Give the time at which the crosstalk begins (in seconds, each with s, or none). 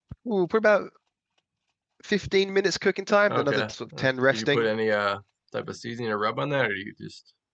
3.3 s